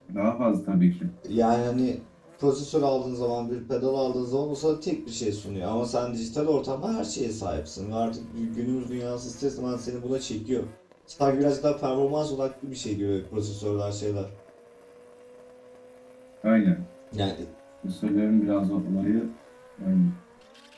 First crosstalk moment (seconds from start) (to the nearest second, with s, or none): none